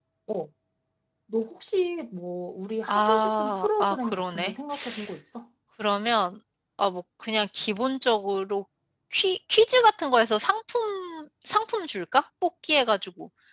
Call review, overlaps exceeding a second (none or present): present